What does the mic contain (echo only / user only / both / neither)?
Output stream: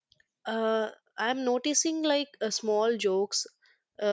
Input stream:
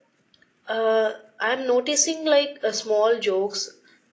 echo only